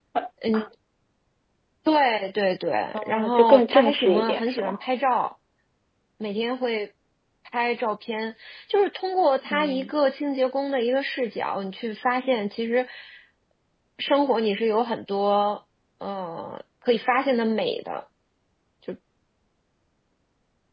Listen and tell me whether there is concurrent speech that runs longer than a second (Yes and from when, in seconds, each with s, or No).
Yes, from 3.0 s